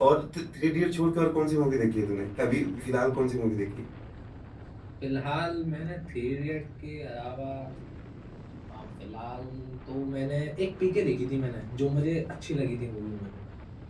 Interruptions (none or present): none